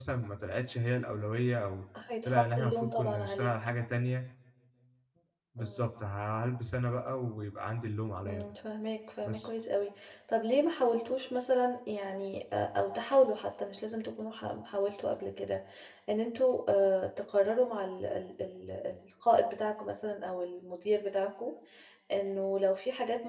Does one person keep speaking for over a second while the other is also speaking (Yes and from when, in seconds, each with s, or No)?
Yes, from 2.2 s